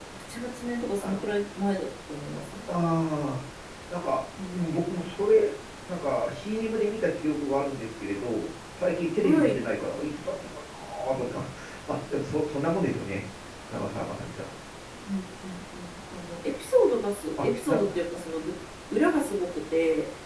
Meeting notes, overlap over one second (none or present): none